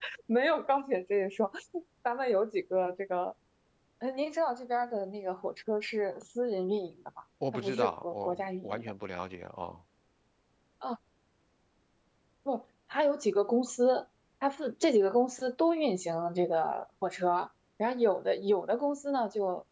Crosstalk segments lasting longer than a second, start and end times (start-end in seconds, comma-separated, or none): 7.5-8.9